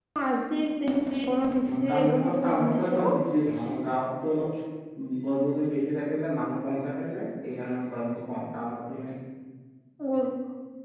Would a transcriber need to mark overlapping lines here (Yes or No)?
Yes